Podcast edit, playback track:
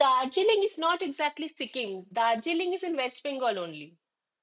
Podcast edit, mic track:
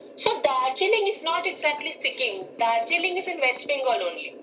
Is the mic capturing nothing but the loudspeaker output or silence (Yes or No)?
Yes